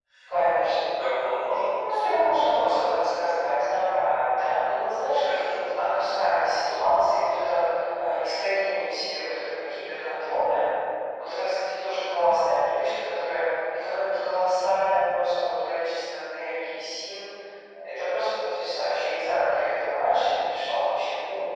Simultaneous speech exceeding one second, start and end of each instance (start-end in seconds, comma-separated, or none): none